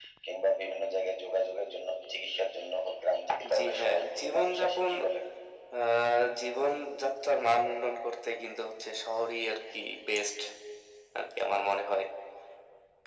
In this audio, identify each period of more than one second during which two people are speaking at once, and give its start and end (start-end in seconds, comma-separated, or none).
3.5-4.9